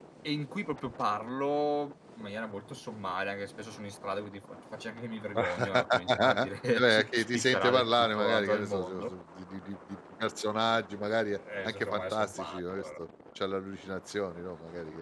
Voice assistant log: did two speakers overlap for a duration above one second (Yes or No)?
Yes